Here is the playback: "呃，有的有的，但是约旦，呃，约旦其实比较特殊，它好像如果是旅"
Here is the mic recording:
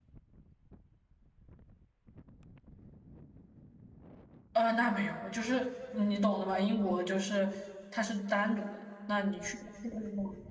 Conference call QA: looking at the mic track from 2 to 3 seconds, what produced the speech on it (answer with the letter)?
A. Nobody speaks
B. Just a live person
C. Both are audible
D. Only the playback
A